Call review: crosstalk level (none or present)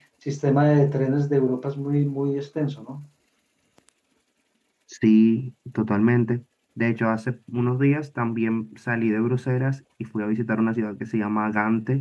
none